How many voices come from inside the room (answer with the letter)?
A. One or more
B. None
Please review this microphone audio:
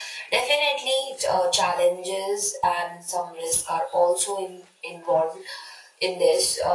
B